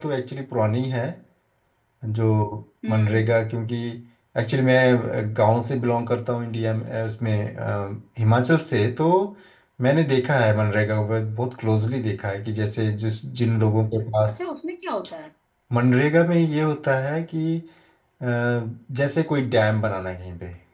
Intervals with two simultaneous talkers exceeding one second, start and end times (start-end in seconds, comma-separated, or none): none